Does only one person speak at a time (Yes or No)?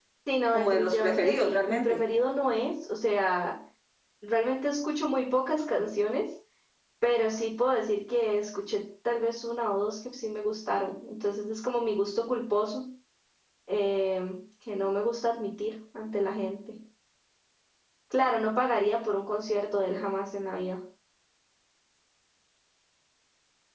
No